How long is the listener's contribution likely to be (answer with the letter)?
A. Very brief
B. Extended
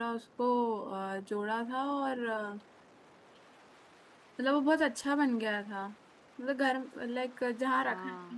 A